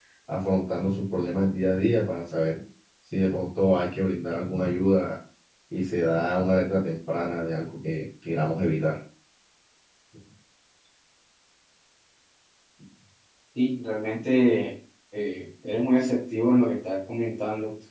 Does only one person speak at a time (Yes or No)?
Yes